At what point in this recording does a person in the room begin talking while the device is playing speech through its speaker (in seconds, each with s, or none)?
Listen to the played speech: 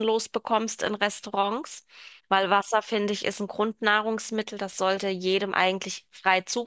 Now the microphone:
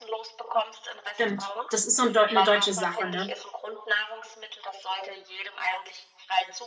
1.1 s